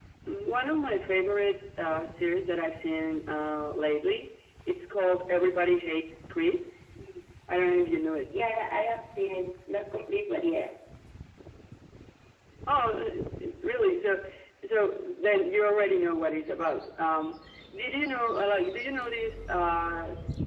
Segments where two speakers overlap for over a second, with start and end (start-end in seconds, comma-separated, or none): none